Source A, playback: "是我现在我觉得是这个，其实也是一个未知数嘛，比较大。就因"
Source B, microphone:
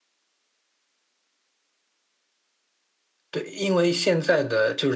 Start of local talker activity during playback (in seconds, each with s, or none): 3.3 s